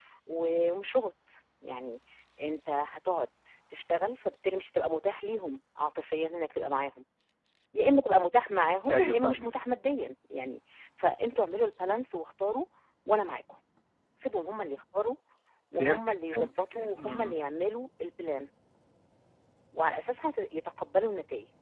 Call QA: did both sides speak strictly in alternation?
No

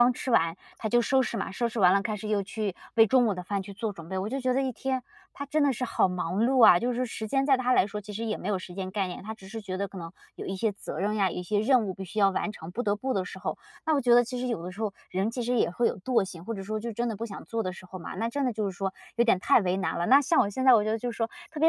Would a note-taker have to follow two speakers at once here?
No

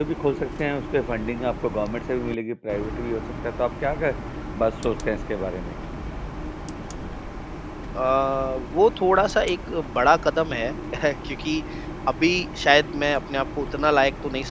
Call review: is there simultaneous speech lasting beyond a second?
No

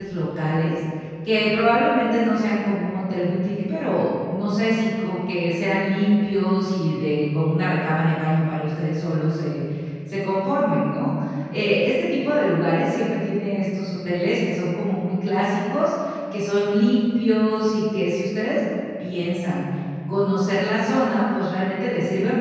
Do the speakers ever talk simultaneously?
No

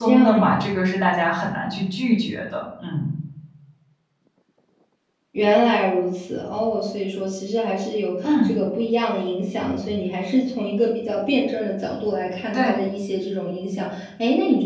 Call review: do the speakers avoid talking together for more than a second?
Yes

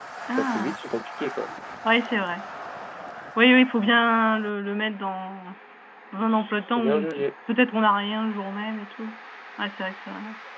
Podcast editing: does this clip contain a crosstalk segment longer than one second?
No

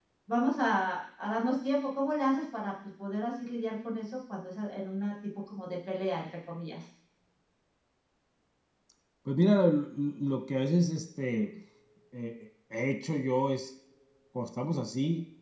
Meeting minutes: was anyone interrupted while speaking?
No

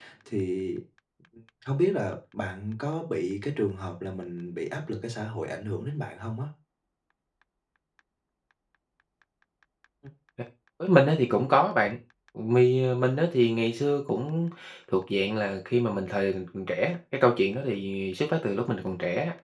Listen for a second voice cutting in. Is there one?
No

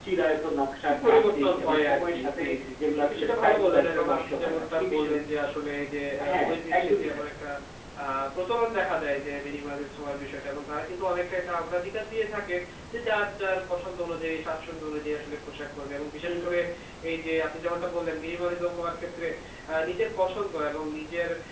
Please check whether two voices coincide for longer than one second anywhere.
Yes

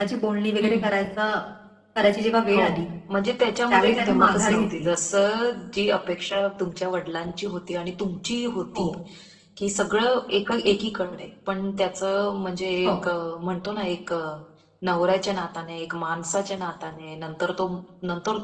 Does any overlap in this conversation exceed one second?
Yes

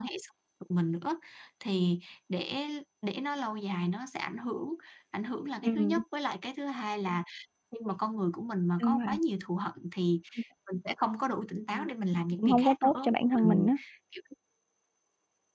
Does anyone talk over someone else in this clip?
Yes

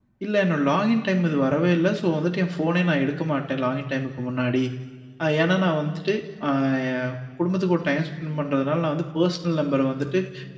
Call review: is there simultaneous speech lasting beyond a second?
No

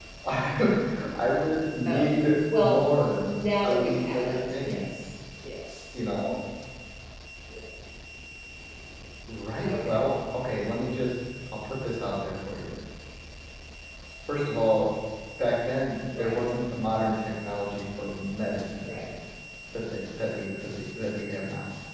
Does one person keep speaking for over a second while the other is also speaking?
Yes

